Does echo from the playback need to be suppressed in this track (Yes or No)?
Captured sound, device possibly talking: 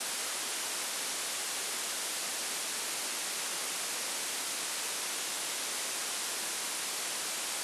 No